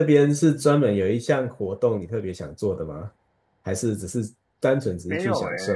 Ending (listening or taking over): taking over